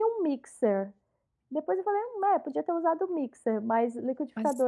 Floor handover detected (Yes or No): No